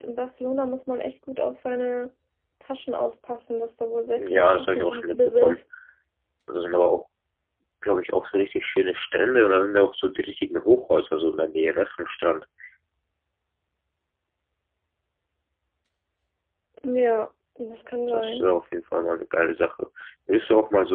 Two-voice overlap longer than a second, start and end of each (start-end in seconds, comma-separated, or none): 4.3-5.6